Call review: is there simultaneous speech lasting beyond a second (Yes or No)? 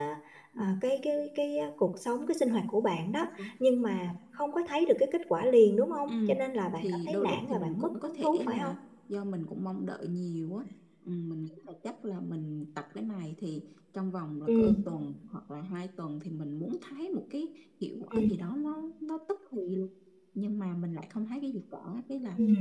Yes